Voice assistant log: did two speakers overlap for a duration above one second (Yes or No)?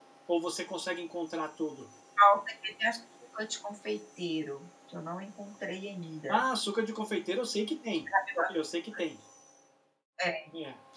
No